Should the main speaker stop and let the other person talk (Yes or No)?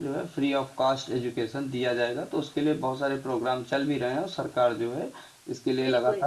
Yes